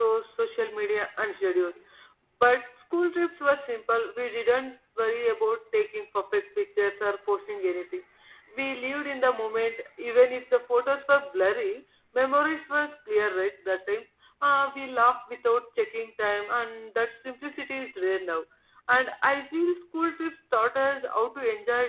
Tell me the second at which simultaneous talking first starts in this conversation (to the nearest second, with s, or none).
none